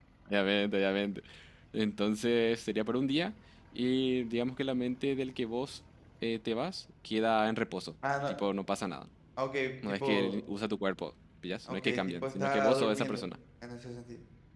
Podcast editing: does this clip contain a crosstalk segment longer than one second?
Yes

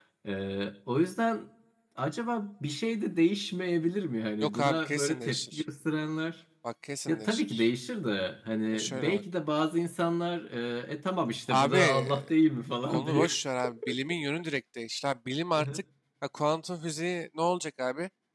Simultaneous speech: Yes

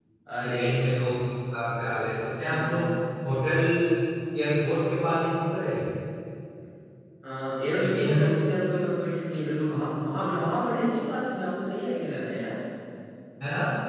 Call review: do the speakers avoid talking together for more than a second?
Yes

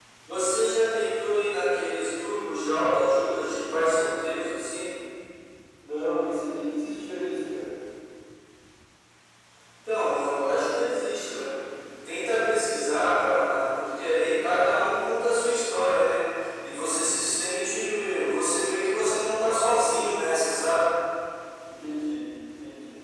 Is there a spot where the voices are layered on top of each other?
No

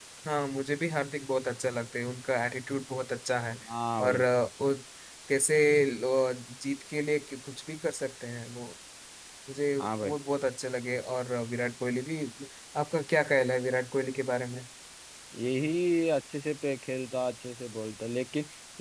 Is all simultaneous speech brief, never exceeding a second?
Yes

